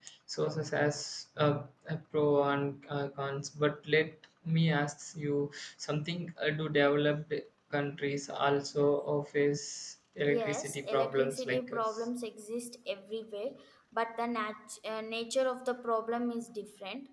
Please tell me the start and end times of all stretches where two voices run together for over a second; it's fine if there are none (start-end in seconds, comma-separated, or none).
10.2-12.0